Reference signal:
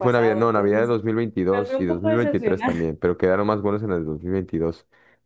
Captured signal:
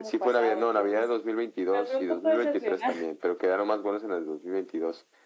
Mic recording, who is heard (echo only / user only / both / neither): echo only